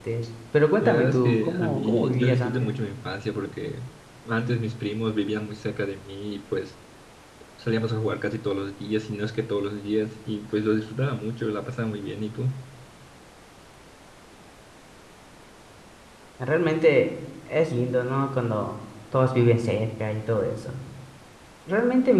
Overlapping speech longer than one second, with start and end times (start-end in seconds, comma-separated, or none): 0.8-2.7